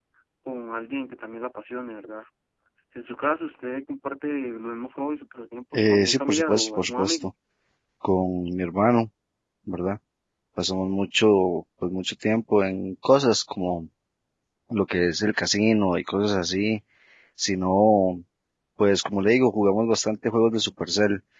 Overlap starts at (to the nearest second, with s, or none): 6 s